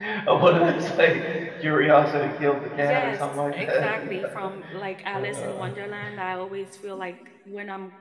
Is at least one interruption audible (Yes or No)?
Yes